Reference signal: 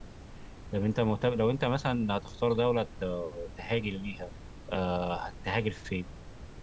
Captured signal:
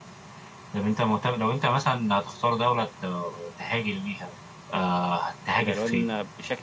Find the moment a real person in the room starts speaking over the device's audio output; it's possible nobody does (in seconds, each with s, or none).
5.6 s